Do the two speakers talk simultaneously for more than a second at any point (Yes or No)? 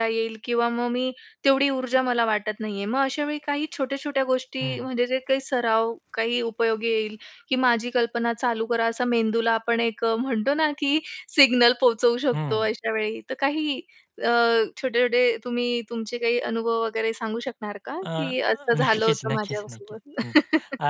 Yes